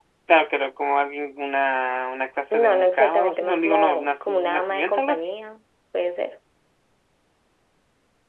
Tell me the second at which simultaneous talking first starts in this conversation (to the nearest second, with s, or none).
3 s